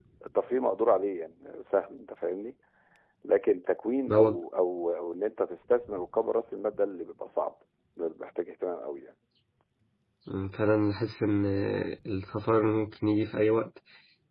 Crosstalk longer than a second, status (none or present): none